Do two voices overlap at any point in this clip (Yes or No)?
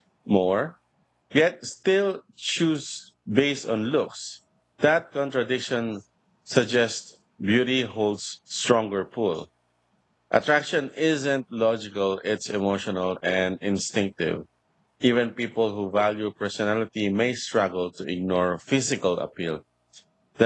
No